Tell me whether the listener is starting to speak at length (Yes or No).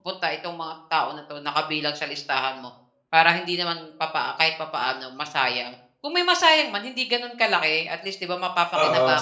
Yes